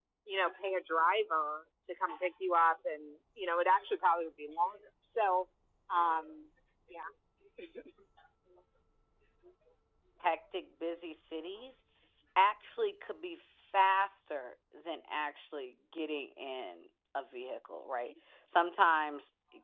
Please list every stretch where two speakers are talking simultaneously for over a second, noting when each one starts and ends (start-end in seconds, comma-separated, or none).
none